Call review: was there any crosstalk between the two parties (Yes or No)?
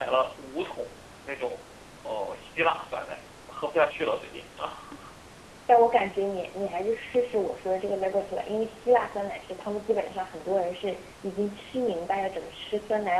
No